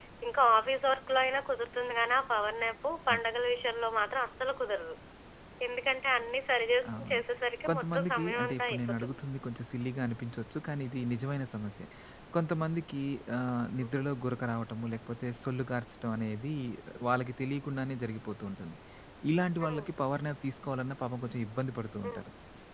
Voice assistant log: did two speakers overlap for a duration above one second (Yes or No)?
Yes